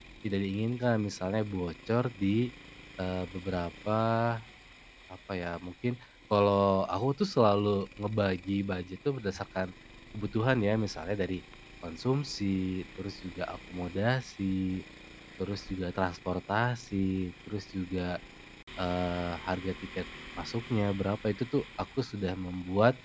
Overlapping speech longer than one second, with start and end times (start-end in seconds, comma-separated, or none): none